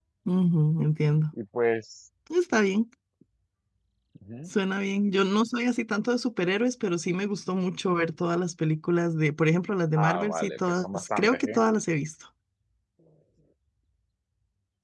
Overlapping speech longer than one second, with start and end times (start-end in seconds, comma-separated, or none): 10.0-11.6